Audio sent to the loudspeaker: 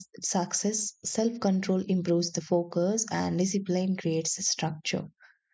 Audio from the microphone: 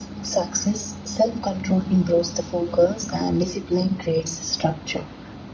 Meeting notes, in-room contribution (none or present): none